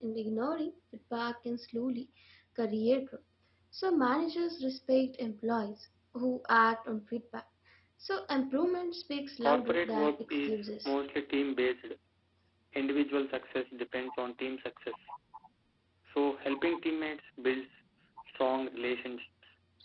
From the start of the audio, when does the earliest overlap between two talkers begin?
9.4 s

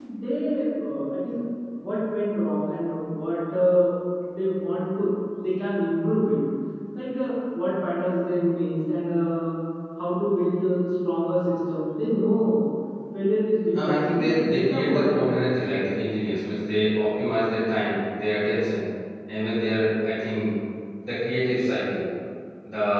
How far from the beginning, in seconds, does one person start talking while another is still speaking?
13.8 s

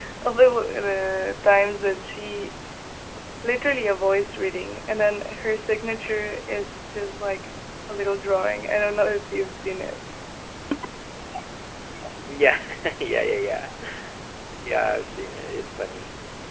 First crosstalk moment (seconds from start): none

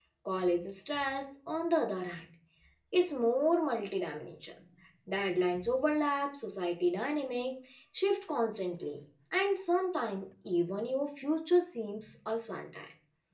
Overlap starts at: none

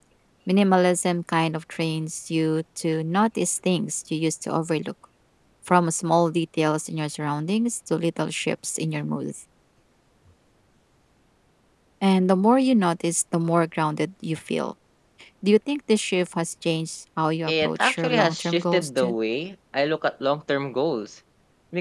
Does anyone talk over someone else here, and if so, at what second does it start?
17.5 s

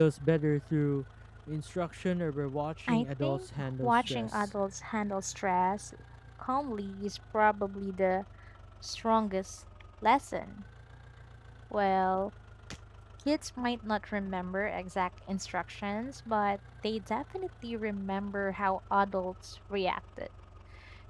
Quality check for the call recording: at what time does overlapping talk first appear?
2.9 s

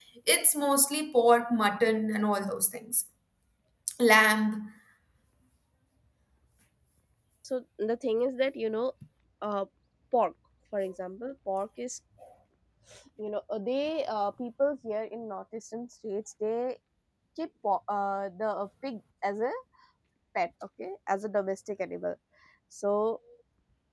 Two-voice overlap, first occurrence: none

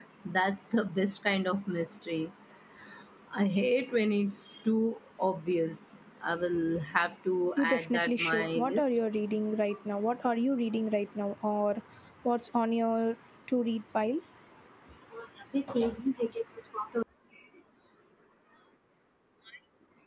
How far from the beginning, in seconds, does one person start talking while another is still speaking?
7.6 s

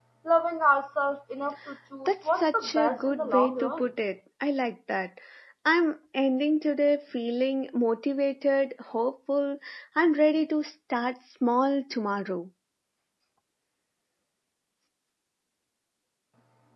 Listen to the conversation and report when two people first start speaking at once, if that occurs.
2.1 s

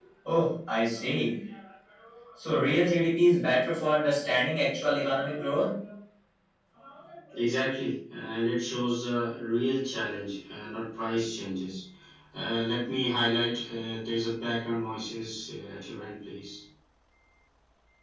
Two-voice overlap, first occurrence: none

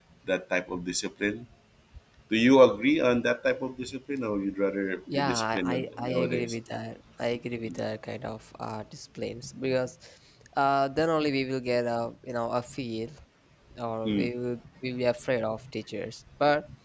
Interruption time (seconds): 5.1 s

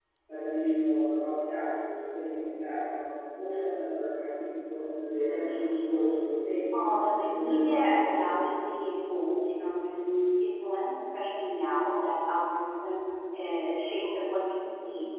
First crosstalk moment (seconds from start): 7.3 s

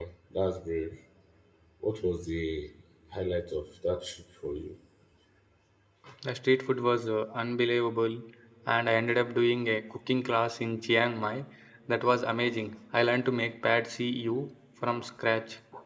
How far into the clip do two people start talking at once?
none

